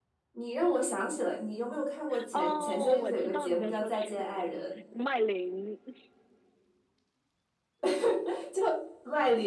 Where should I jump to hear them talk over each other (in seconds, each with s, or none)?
2.1 s